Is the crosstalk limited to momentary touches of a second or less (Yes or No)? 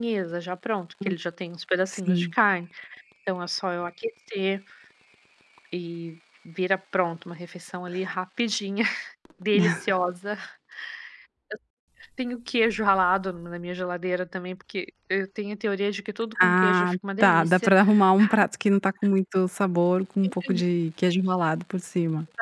No